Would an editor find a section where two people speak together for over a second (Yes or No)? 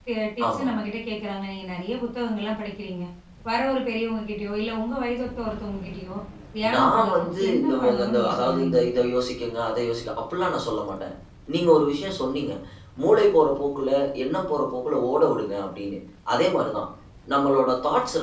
Yes